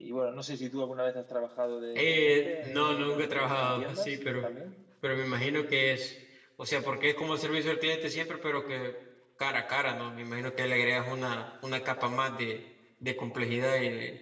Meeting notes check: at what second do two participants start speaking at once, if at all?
1.9 s

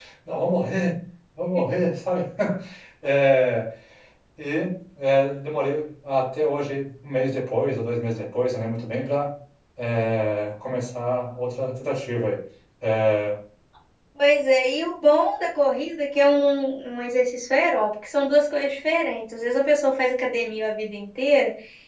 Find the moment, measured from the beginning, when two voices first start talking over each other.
none

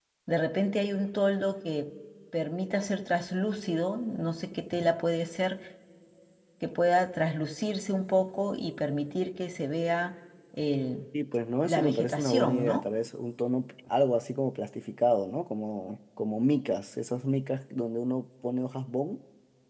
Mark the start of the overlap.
11.6 s

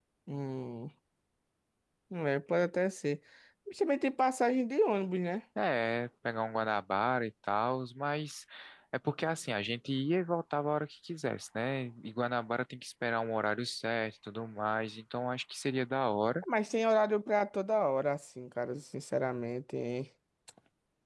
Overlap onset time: none

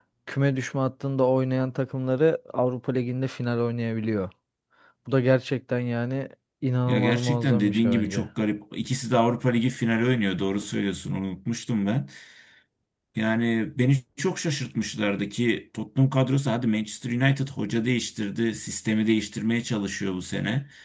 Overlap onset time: 6.9 s

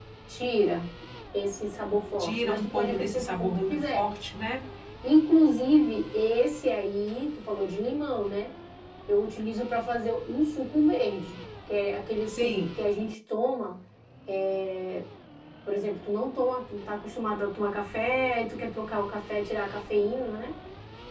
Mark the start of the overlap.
2.2 s

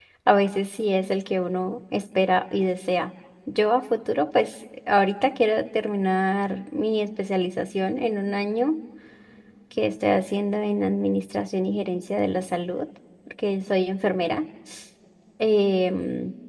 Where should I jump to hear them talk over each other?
none

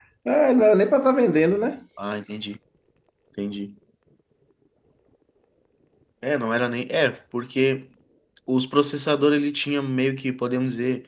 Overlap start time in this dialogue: none

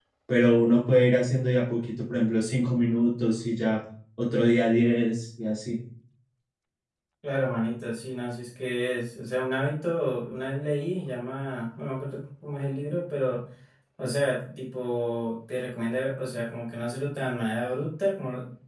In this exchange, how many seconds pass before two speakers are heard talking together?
none

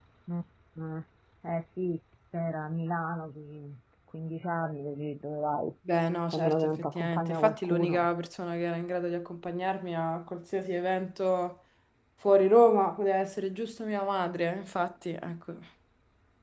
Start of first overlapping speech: 6.3 s

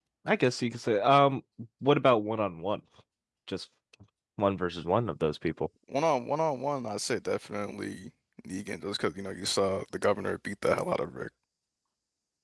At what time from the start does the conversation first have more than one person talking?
none

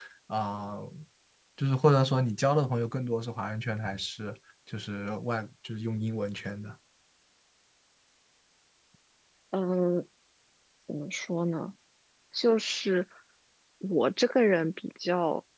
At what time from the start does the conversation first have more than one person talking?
none

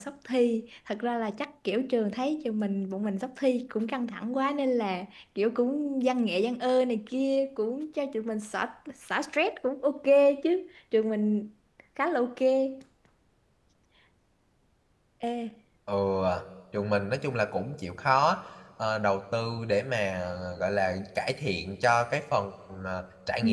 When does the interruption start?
none

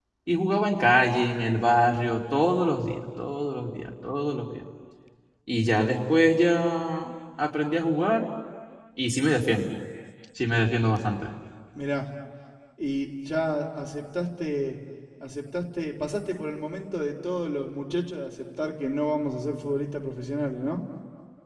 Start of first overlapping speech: none

